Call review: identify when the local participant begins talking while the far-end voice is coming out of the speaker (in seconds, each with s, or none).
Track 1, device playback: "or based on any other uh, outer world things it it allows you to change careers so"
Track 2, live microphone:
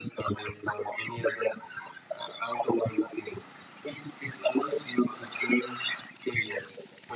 none